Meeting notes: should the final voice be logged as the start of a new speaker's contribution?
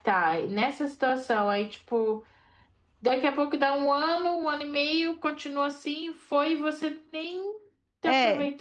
Yes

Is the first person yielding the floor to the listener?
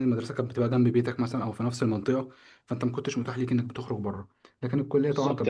Yes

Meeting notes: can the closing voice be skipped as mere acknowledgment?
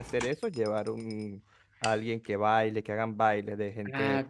No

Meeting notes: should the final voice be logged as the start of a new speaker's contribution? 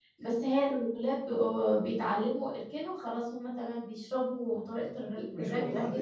Yes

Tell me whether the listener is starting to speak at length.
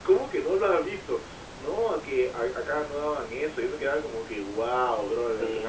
Yes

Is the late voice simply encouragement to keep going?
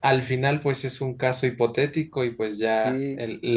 Yes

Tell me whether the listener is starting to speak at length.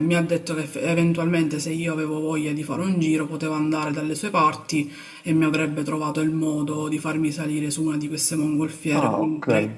No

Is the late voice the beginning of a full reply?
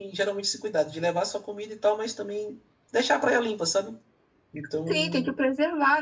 Yes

